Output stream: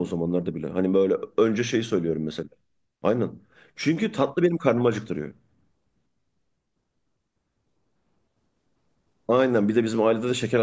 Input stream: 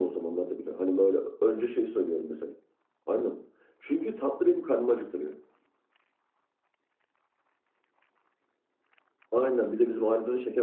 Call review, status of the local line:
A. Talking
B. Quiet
B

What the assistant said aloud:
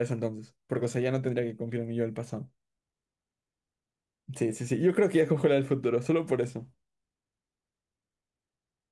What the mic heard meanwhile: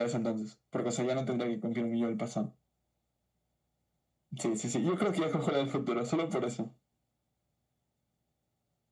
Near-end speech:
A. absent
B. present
A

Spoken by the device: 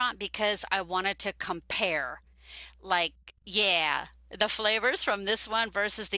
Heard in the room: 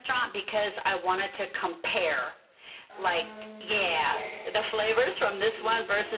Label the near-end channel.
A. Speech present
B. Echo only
A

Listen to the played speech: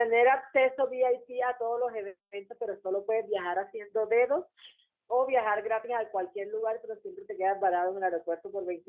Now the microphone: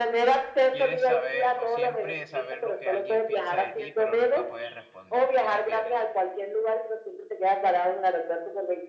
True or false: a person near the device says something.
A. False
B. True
B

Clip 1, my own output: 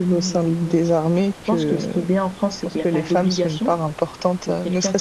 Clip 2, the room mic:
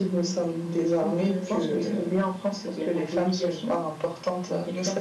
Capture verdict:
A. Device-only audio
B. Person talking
B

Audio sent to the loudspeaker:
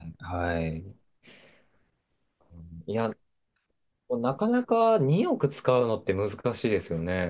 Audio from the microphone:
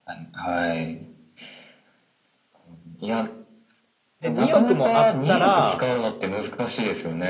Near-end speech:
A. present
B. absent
A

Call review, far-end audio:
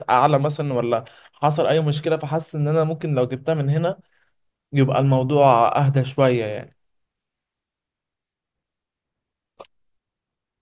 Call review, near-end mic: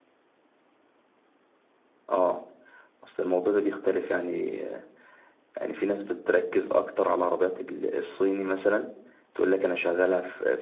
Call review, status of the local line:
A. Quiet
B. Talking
B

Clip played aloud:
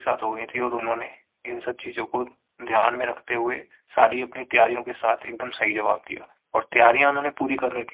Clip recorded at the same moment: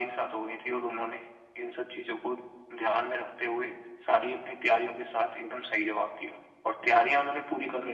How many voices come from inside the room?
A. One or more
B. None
B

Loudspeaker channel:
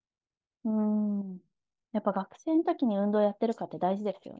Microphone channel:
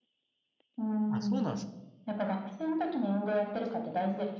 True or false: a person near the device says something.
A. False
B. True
B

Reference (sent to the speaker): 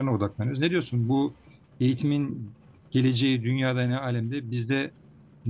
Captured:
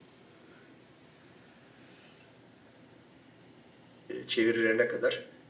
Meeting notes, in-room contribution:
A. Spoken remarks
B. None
A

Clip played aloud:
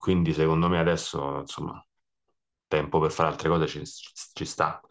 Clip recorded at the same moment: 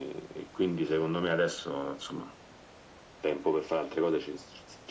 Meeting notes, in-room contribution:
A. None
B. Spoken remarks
A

